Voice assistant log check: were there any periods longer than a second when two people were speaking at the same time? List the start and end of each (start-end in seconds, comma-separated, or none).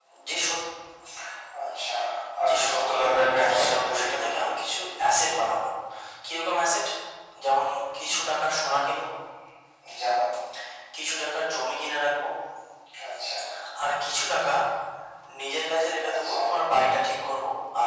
2.5-4.4